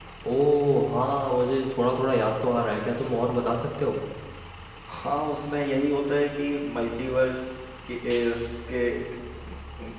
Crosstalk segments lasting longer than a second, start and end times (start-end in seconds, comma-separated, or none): none